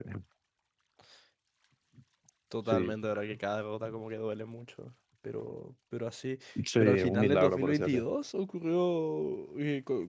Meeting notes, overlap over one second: present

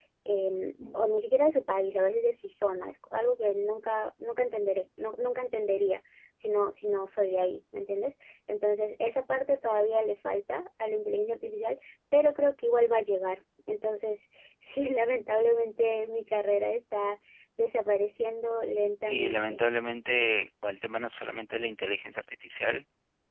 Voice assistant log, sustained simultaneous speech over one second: none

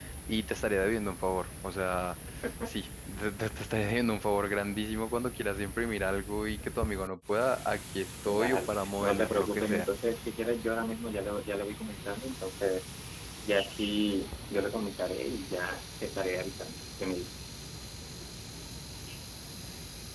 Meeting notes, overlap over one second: present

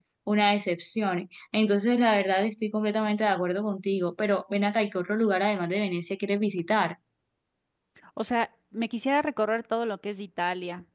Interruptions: none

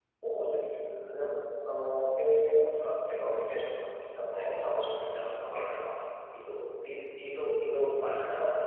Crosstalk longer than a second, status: present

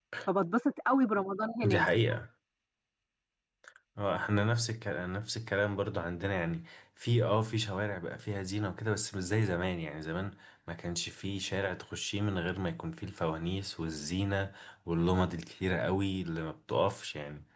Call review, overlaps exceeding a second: none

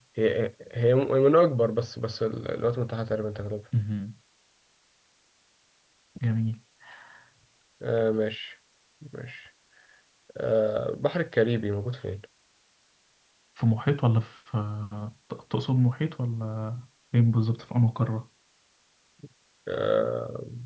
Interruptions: none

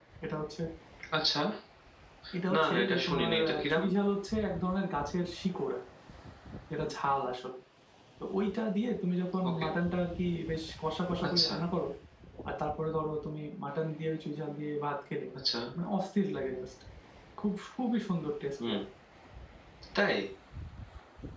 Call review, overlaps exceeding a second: present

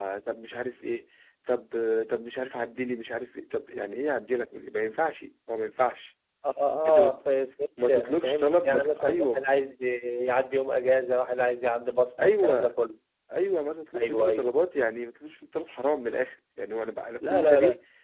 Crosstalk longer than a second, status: present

